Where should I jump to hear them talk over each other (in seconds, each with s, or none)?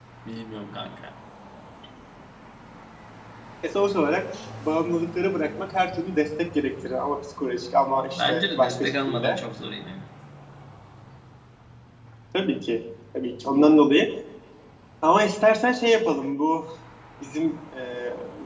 8.1 s